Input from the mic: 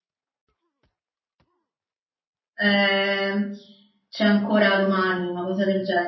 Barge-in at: 3 s

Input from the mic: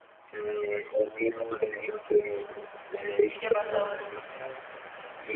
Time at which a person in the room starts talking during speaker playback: 3 s

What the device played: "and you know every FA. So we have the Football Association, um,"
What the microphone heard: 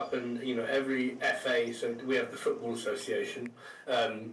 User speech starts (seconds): none

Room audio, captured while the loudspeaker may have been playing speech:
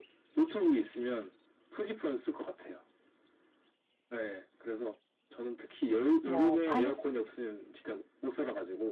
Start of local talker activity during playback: 6 s

